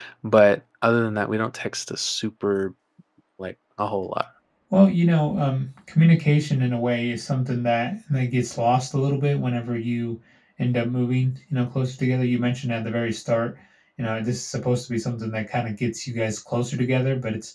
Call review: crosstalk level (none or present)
none